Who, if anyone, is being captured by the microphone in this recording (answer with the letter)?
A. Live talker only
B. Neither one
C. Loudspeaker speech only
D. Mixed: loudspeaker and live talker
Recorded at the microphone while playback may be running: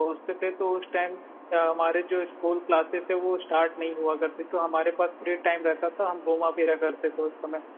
A